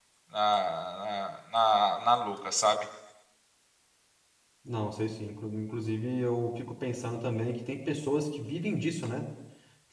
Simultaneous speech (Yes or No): No